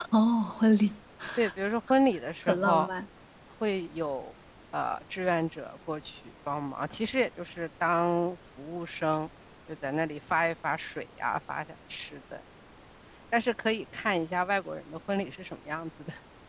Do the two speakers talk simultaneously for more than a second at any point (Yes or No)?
No